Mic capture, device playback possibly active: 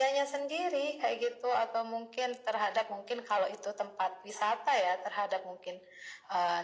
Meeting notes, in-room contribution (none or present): none